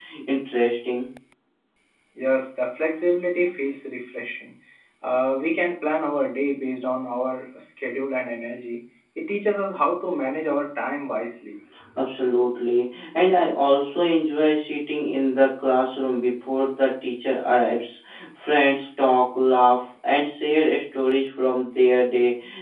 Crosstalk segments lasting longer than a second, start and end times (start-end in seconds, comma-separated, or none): none